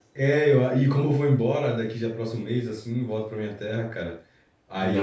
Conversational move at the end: listening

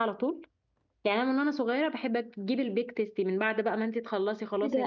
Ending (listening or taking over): taking over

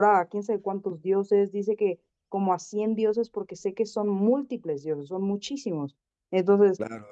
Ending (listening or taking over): taking over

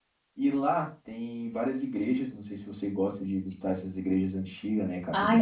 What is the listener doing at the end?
taking over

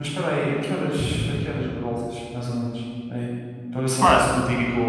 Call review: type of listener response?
listening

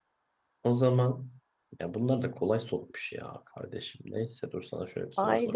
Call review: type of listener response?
taking over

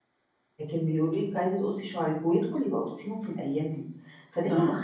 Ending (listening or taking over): listening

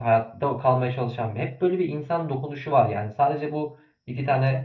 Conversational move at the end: listening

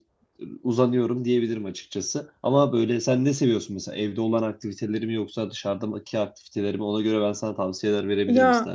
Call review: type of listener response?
taking over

